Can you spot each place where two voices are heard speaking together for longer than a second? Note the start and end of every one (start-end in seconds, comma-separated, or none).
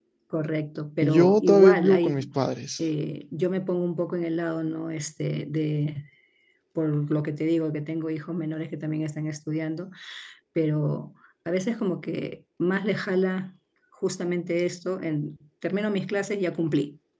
1.0-2.3